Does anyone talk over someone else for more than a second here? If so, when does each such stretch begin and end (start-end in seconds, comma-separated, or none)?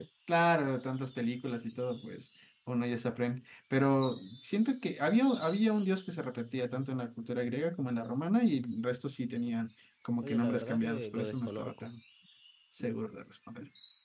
10.2-11.9